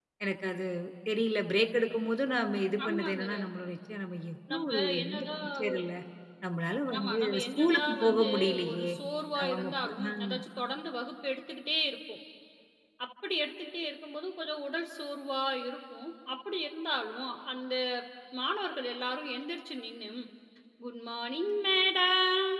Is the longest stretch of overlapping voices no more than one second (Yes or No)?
No